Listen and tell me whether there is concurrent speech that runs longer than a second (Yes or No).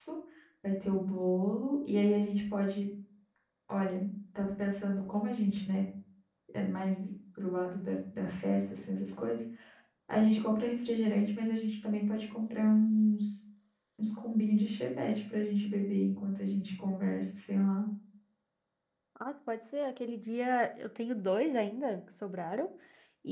No